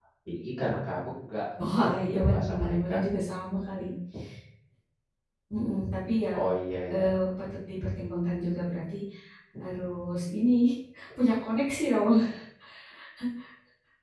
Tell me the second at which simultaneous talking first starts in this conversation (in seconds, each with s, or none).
1.7 s